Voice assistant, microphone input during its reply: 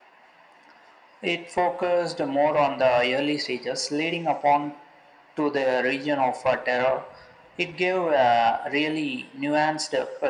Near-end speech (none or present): none